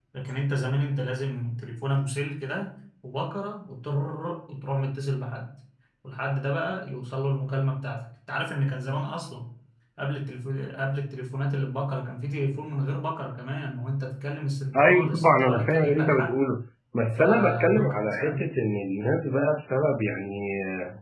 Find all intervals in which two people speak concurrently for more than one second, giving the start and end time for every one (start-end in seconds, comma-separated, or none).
14.8-16.3, 17.2-18.5